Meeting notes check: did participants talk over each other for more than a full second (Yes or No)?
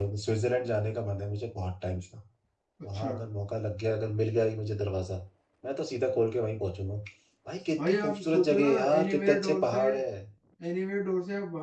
Yes